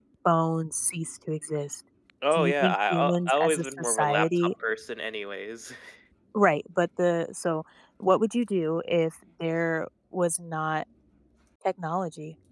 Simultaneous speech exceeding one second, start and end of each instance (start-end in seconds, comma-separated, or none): 2.3-4.5